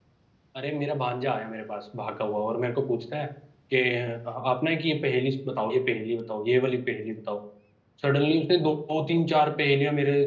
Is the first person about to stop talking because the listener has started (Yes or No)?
No